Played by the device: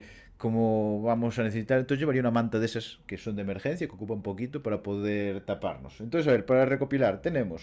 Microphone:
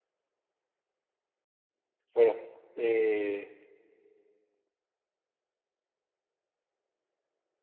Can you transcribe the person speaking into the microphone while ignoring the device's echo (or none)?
bueno, eh,